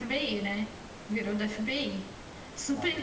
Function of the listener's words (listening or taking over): taking over